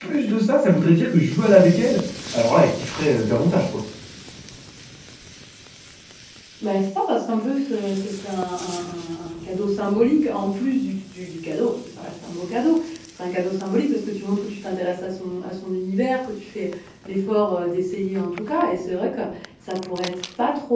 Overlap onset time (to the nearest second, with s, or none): none